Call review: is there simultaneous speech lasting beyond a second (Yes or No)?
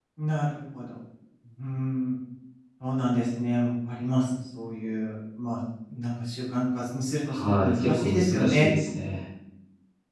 Yes